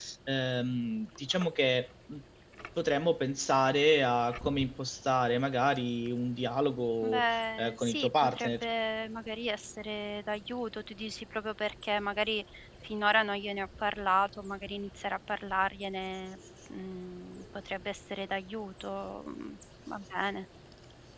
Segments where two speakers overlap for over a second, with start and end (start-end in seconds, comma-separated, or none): 7.0-8.6